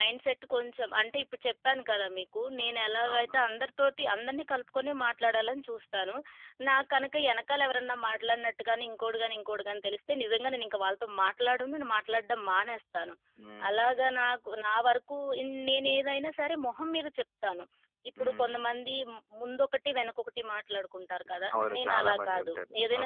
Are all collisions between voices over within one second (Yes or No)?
No